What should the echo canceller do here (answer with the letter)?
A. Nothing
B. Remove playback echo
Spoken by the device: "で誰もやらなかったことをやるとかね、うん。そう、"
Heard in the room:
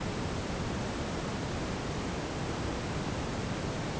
A